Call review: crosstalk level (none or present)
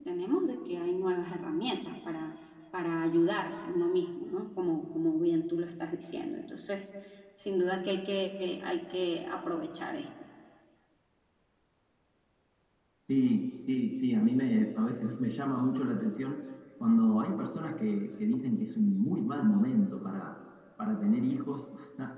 none